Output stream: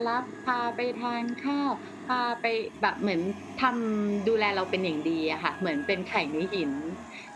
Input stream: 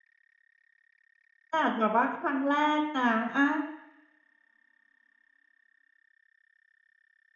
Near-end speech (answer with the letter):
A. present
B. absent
A